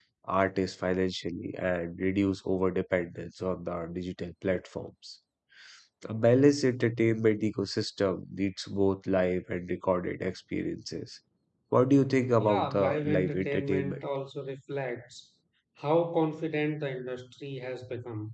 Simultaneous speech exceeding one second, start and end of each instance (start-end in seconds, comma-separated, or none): 12.4-14.0